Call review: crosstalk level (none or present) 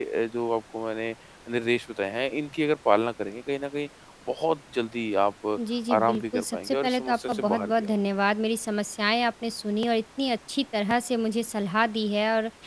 present